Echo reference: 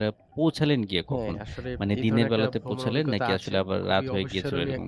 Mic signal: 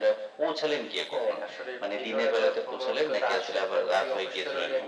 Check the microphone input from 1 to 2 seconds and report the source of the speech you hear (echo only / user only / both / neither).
echo only